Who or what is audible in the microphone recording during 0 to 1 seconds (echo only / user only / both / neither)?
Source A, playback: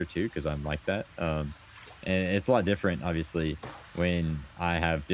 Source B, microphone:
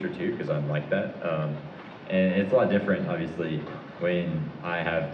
echo only